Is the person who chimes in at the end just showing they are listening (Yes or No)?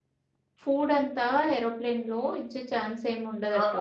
No